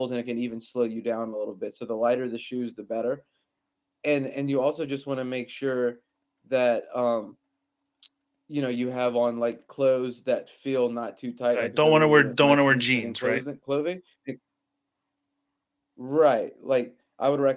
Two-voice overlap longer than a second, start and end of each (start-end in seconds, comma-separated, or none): 11.6-13.4